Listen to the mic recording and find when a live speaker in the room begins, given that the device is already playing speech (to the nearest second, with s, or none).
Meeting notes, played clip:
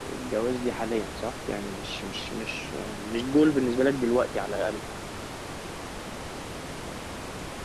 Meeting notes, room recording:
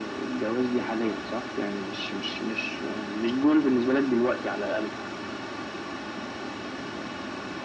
none